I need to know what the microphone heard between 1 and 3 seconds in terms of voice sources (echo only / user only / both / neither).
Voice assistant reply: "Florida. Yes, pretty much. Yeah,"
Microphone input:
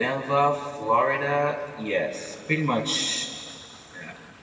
echo only